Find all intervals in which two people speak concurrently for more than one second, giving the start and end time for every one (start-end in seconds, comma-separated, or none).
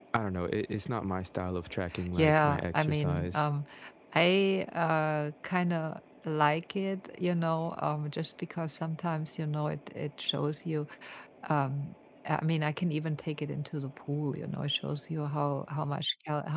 2.1-3.5